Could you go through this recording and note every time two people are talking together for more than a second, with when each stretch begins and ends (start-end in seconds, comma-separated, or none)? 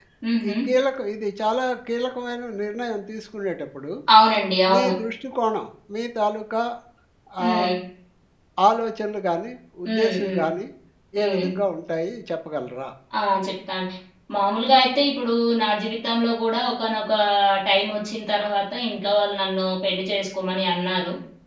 none